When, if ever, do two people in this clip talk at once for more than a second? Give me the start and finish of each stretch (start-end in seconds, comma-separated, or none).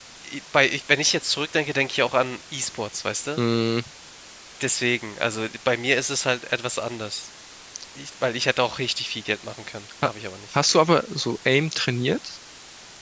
none